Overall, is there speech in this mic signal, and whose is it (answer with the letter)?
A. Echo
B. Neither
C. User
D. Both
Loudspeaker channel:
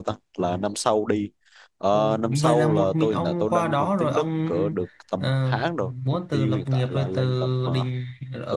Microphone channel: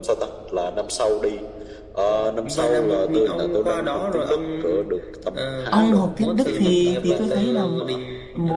D